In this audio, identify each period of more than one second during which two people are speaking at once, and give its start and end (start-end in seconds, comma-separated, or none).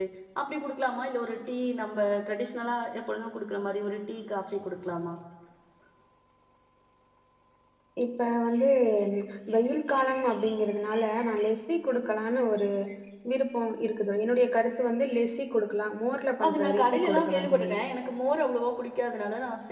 16.4-17.7